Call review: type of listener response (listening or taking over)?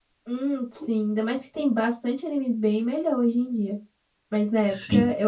listening